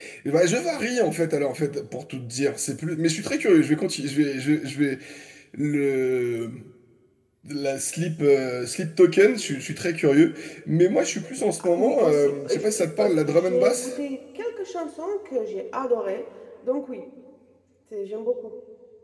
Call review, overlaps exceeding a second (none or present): present